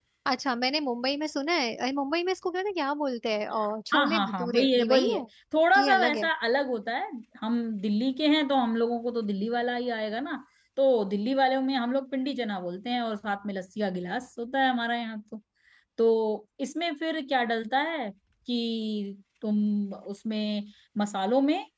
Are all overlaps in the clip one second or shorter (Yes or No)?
No